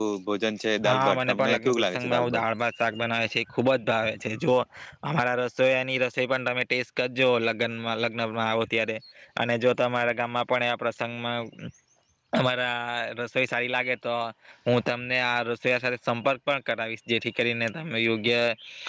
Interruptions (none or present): present